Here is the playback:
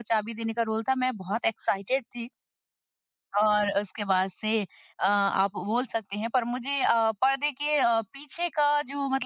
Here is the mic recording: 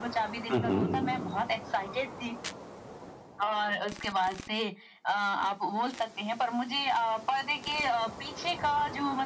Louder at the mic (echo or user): user